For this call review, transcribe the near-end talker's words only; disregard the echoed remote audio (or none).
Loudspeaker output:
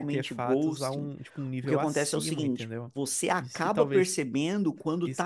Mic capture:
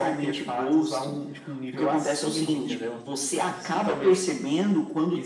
none